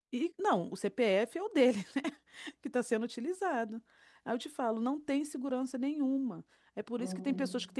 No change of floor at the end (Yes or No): Yes